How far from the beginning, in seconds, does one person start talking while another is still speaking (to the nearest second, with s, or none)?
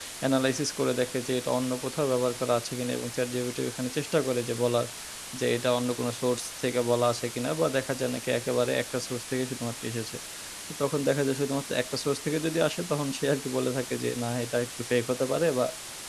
none